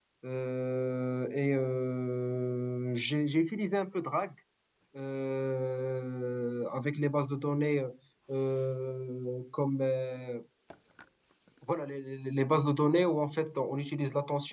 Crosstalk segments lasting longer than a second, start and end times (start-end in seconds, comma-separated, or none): none